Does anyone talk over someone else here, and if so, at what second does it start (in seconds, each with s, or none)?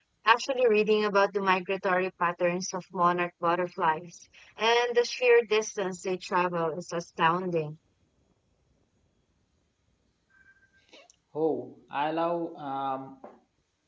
none